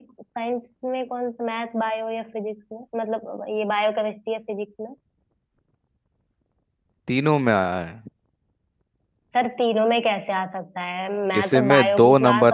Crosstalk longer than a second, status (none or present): present